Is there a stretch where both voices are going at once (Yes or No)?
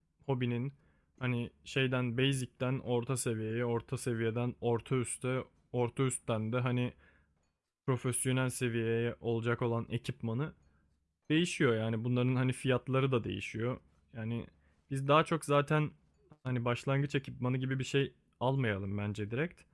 No